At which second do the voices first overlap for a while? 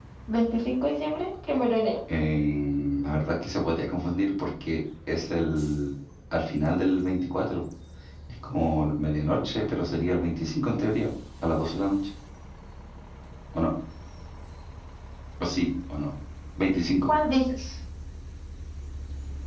none

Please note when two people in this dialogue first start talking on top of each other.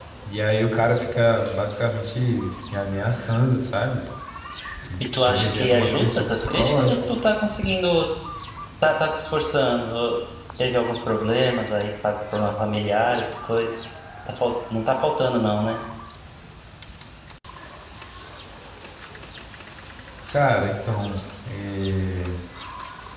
5 s

